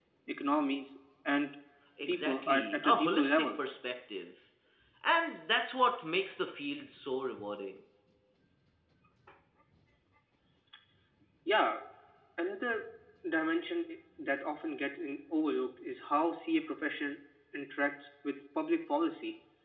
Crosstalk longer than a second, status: present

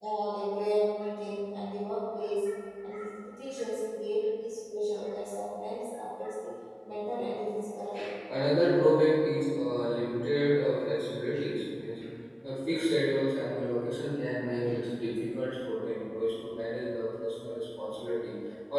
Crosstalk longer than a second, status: none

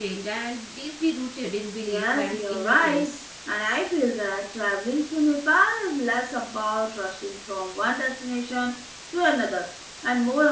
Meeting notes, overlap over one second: present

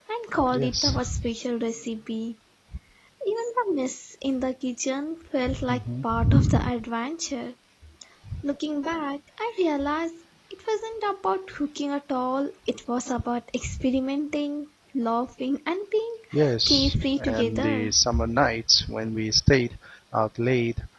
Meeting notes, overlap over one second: present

